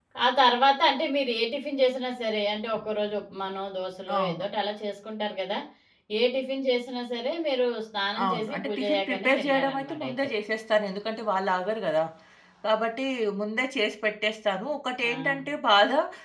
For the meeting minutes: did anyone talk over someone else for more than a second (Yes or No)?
Yes